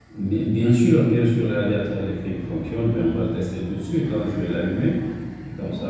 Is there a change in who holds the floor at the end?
No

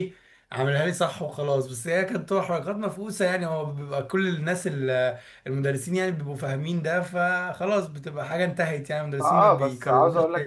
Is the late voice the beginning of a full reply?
Yes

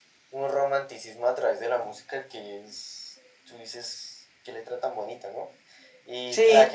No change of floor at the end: Yes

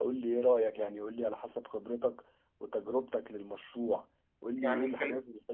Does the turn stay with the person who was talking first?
Yes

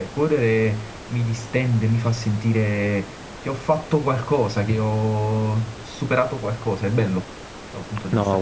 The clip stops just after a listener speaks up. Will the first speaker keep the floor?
No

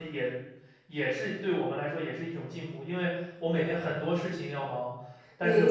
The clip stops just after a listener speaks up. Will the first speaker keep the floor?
Yes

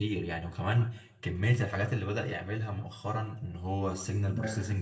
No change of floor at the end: Yes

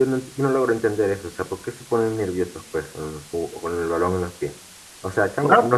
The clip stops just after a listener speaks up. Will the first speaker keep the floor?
Yes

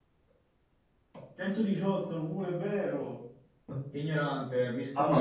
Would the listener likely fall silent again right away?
No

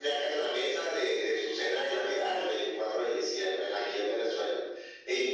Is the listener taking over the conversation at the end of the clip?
Yes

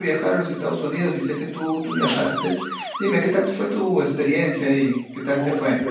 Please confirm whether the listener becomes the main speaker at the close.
Yes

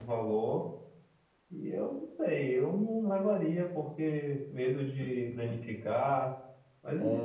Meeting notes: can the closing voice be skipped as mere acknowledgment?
No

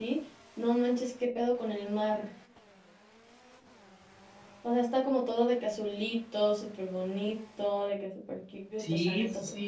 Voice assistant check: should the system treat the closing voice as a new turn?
Yes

